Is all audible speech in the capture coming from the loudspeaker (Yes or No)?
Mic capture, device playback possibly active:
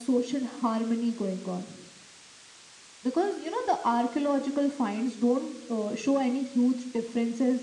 Yes